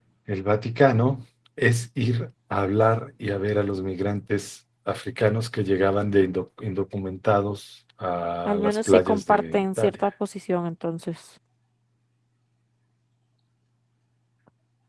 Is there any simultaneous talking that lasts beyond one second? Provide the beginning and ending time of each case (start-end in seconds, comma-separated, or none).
8.5-9.9